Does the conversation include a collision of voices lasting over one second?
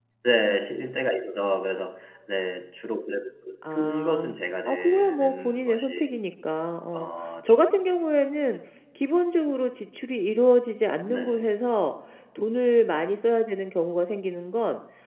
Yes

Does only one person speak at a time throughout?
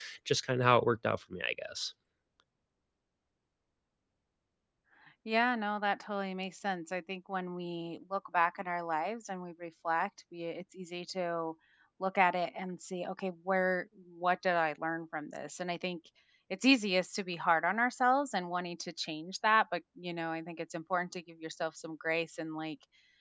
Yes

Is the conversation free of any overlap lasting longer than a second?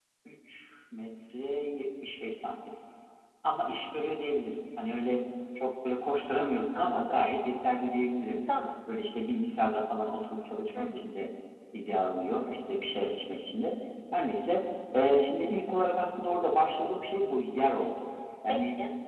Yes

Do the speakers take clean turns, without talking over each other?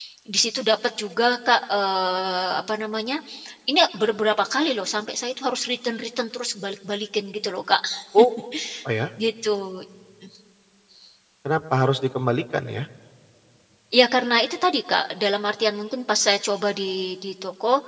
Yes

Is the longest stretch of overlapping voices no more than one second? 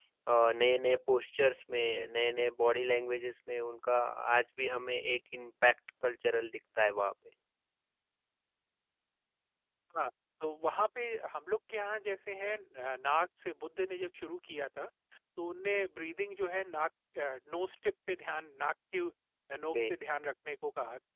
Yes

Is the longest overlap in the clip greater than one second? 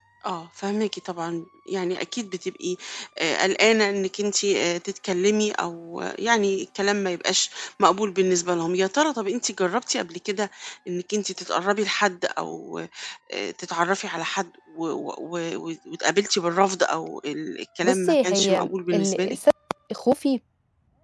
Yes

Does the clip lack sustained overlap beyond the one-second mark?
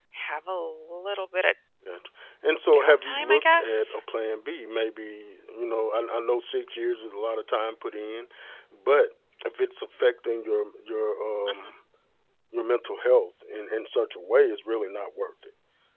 No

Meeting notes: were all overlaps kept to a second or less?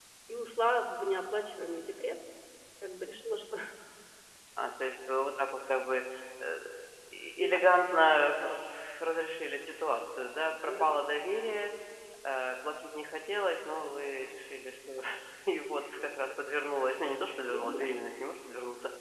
Yes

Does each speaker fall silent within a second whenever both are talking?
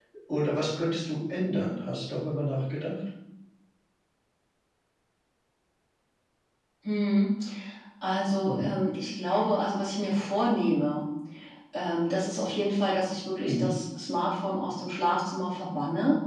Yes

